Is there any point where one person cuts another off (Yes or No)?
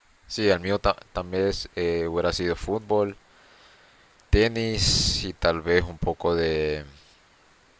No